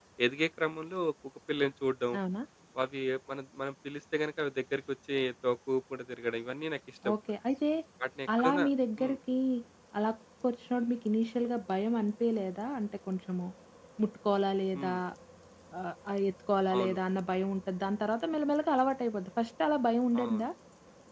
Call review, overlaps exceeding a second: none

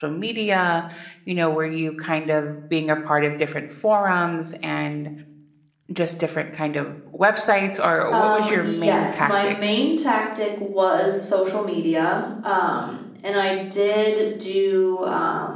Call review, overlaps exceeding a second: present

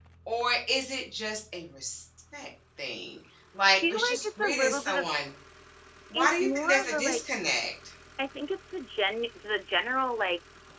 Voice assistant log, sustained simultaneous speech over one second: present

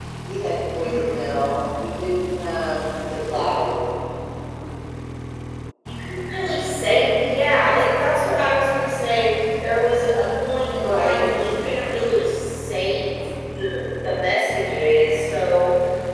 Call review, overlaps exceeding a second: none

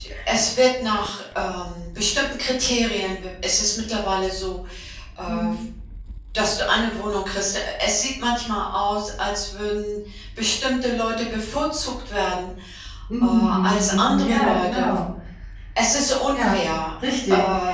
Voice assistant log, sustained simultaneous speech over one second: present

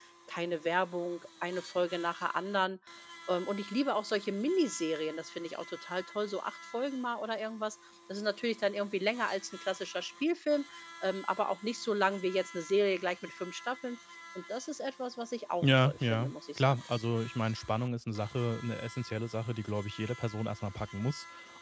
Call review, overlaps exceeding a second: present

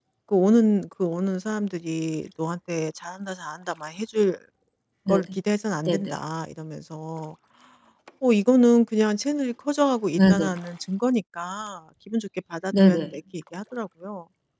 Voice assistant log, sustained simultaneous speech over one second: none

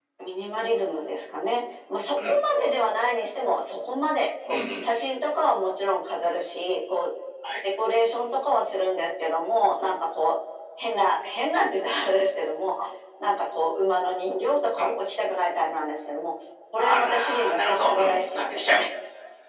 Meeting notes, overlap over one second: present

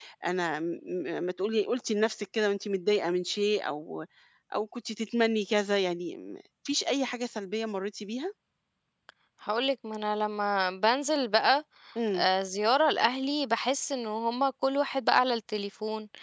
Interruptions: none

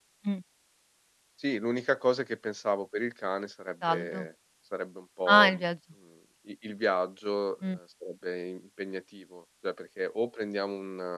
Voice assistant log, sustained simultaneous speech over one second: none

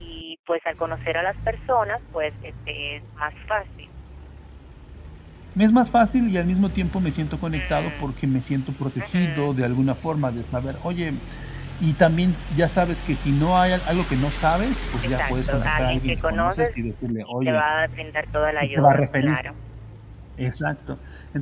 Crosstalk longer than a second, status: present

